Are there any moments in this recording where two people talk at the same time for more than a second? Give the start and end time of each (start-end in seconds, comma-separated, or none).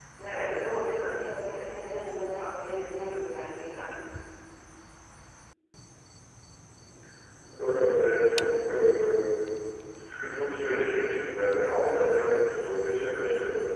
none